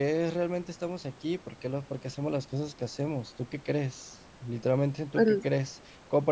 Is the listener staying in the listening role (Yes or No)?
Yes